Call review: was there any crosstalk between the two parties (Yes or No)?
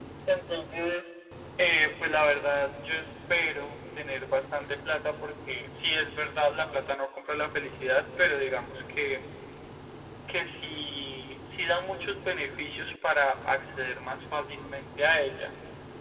No